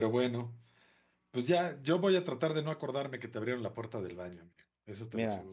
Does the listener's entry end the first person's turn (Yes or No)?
Yes